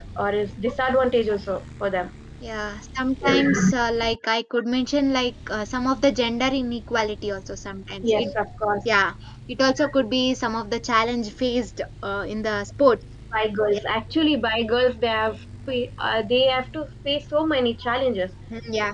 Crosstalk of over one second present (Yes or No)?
No